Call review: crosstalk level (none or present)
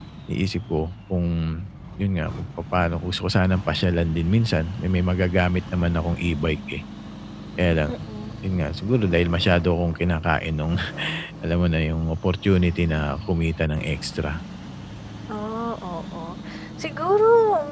none